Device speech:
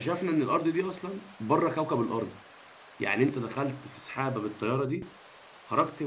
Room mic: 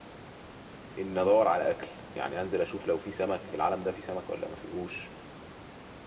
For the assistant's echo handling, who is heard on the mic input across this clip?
user only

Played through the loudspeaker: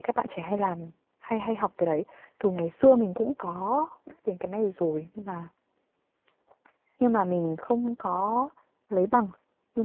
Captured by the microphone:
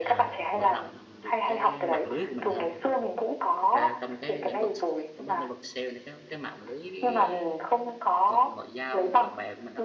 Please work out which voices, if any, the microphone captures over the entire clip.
both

